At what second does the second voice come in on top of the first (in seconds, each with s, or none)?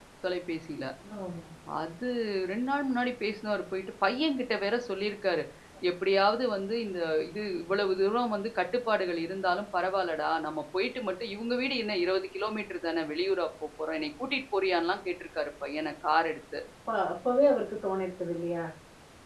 none